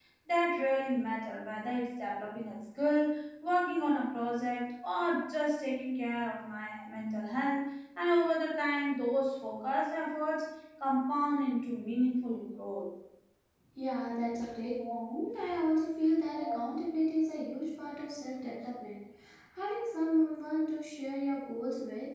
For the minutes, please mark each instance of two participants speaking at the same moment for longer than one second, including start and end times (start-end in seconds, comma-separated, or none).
none